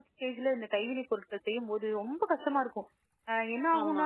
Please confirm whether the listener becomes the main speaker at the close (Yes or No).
No